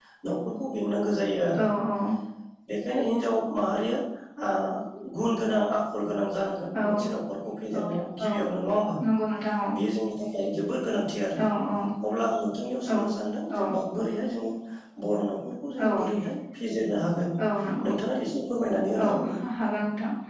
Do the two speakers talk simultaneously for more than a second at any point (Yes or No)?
No